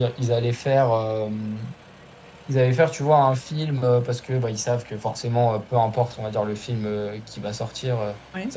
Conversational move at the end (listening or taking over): listening